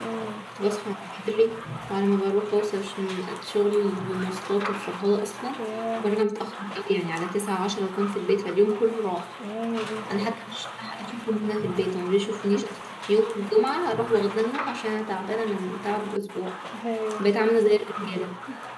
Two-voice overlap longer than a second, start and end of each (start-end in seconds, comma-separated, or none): none